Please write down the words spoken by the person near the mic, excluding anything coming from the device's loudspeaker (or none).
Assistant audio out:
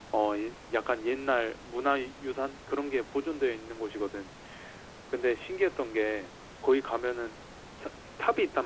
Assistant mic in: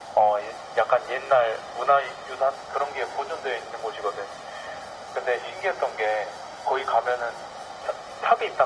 none